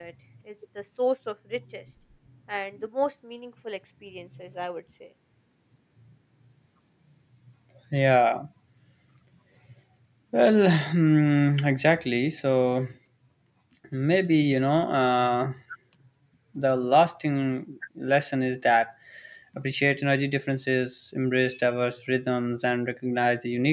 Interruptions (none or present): none